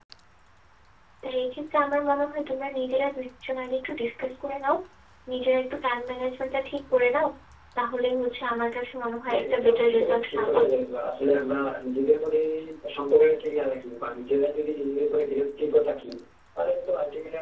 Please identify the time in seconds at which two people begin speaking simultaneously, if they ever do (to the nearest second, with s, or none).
9 s